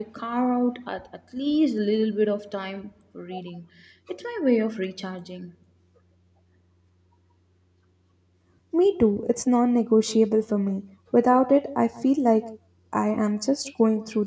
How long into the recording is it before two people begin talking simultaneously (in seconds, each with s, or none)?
none